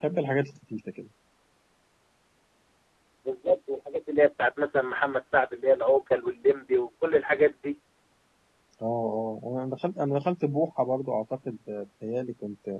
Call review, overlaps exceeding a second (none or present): none